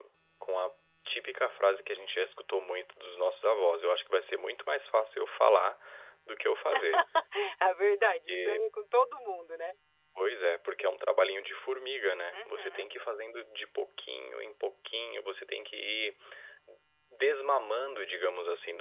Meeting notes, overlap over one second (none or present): none